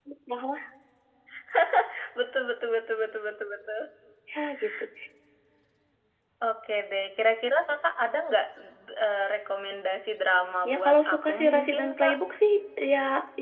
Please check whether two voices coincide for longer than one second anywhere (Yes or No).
Yes